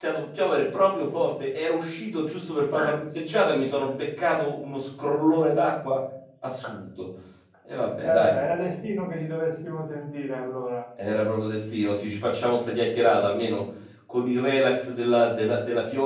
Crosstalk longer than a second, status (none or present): none